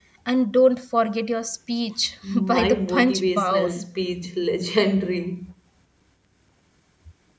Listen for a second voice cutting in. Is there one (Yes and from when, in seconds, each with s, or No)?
Yes, from 2.2 s